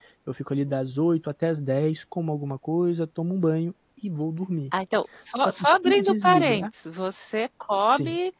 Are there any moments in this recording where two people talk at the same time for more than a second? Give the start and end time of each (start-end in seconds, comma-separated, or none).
5.4-6.7